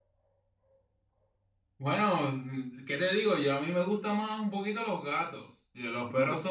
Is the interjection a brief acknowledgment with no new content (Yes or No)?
Yes